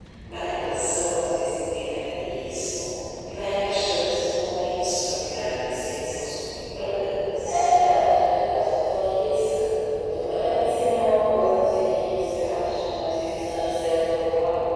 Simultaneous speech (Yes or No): No